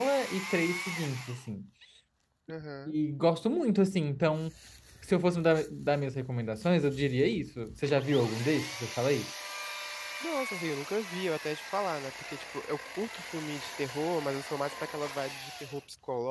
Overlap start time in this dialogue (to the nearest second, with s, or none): none